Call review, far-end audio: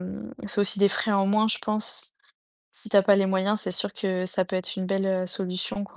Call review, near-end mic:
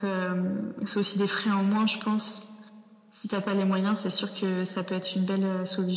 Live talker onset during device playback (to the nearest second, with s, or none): none